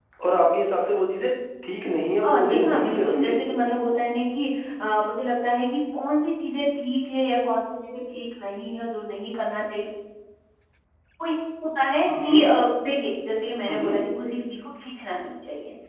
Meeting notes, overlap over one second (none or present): present